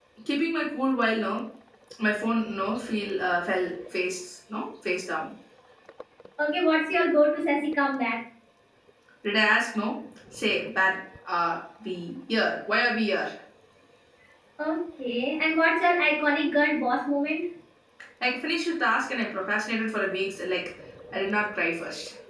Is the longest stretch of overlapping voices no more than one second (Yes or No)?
Yes